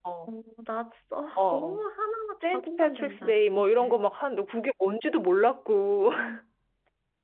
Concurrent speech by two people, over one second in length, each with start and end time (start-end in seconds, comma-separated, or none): 2.4-4.0